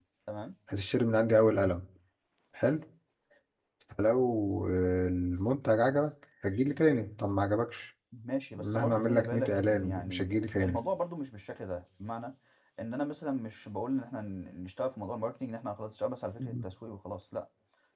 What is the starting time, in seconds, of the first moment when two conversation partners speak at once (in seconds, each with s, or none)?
8.5 s